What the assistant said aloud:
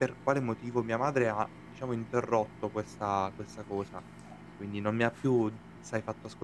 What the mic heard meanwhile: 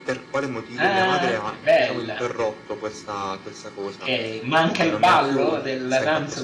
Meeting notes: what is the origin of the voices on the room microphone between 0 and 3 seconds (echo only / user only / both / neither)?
both